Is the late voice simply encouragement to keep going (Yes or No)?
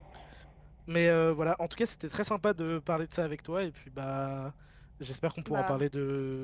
Yes